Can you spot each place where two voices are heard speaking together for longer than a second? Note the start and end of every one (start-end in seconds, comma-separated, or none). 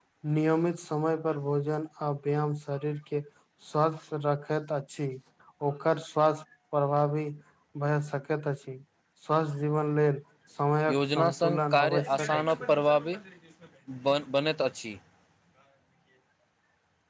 10.9-12.4